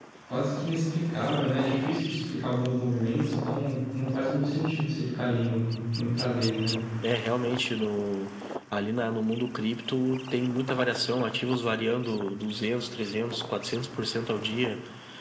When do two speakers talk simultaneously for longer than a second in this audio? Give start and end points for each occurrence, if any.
none

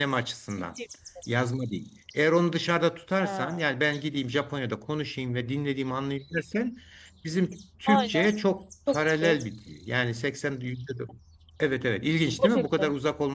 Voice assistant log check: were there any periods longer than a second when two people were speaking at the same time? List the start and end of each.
none

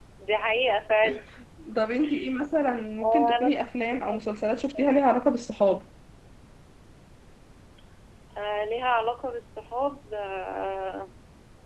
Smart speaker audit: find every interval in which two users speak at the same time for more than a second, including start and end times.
none

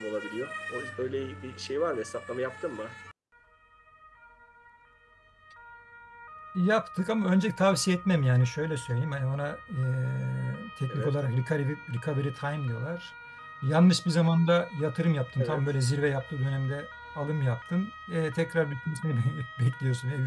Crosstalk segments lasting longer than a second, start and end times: none

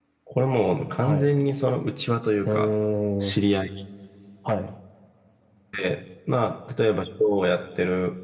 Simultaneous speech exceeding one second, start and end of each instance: none

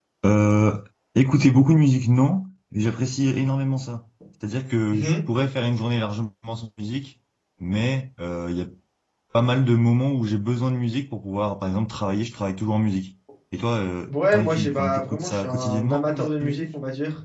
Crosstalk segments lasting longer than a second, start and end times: 14.1-16.7

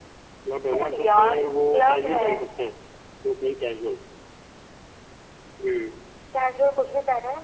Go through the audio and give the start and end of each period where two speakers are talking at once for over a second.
0.7-2.3

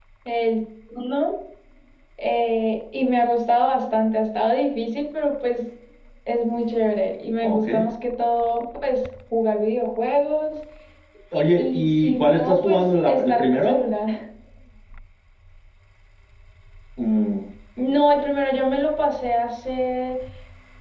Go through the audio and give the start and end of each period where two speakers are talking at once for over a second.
11.6-13.8

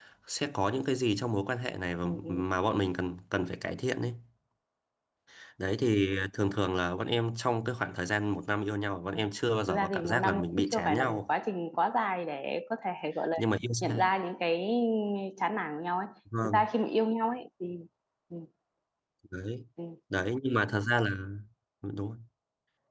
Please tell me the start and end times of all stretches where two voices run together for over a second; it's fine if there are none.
9.7-11.2

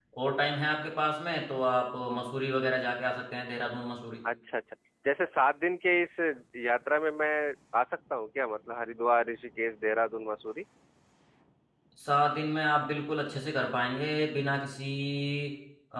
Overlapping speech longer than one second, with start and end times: none

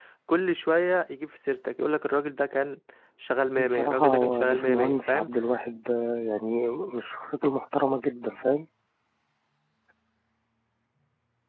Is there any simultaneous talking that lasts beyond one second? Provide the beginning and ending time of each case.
3.5-5.3

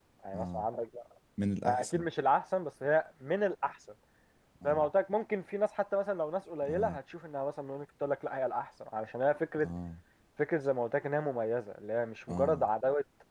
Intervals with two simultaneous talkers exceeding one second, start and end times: none

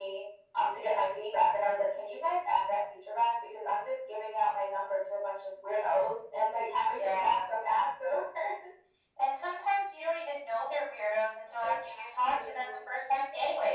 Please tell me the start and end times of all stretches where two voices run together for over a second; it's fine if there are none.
11.6-12.9

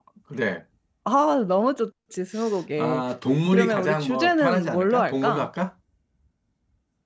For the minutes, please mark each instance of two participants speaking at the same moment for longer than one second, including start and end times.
3.5-5.5

